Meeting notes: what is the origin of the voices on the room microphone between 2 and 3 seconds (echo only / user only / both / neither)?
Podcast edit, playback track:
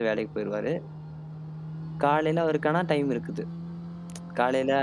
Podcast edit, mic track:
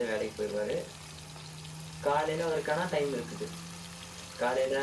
echo only